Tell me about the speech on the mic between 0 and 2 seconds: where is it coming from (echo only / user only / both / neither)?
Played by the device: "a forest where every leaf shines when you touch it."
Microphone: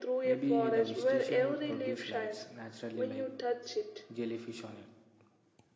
both